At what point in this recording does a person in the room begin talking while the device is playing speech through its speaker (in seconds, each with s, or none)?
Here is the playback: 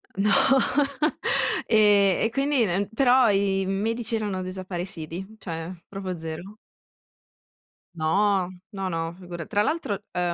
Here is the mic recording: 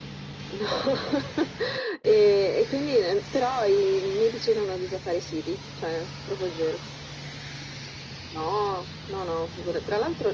none